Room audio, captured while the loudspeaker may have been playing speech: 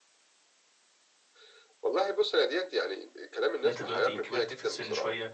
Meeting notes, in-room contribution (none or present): present